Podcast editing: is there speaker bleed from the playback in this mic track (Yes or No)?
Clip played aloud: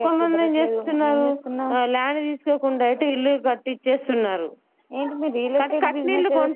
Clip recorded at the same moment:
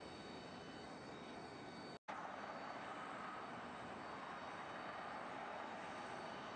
No